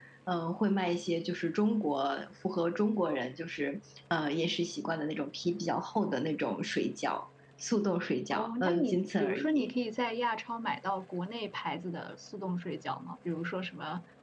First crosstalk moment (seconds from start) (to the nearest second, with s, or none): 8 s